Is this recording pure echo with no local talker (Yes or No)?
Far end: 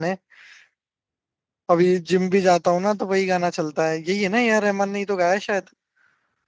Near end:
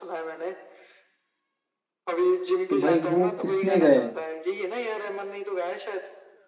No